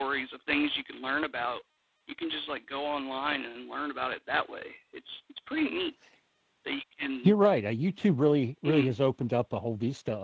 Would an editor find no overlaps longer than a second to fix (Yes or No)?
Yes